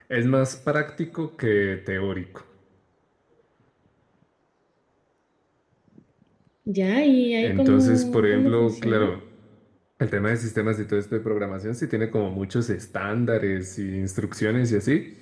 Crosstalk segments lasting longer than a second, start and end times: 7.4-9.1

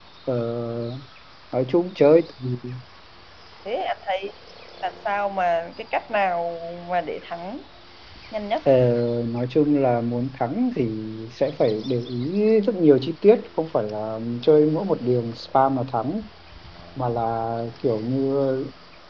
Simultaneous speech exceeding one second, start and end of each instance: none

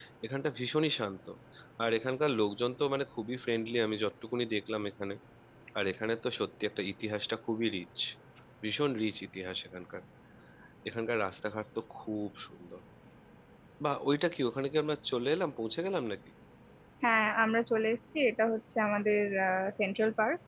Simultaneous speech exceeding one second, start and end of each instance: none

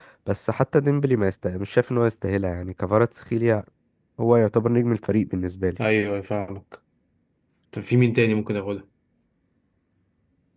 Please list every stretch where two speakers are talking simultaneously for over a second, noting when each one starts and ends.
none

